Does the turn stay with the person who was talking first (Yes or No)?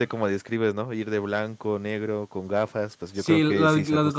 No